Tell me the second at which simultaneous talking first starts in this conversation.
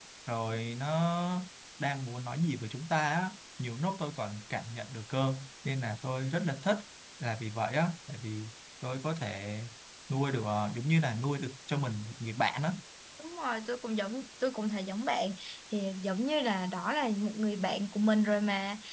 none

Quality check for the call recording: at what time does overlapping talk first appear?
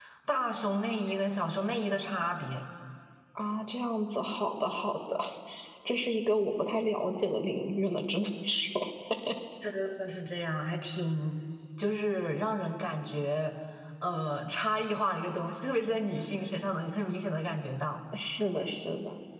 none

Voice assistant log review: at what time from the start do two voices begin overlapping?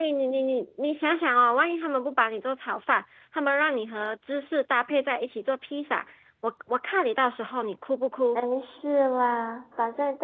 none

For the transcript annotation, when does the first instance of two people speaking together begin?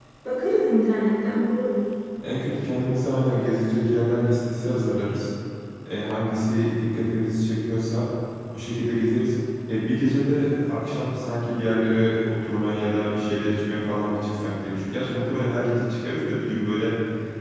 none

